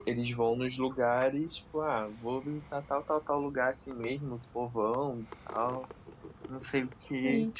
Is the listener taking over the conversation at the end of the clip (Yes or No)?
No